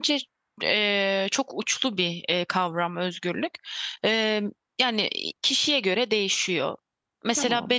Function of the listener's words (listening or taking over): listening